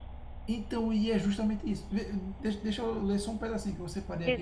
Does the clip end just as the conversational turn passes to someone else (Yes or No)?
Yes